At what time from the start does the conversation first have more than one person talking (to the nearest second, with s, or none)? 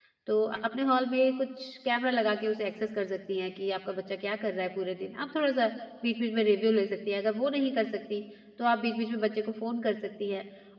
none